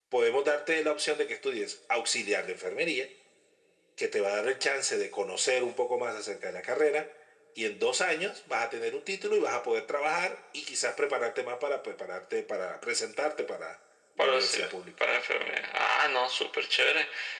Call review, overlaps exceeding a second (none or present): none